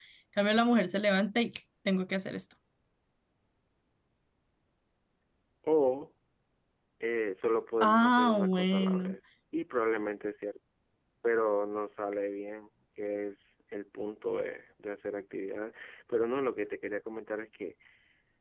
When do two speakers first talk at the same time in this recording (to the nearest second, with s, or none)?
8 s